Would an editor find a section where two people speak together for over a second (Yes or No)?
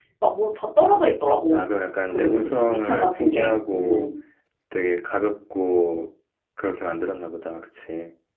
Yes